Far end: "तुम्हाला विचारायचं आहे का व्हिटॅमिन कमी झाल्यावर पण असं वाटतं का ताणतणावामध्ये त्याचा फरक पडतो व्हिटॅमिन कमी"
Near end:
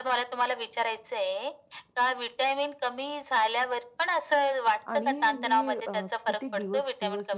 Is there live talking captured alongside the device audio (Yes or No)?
Yes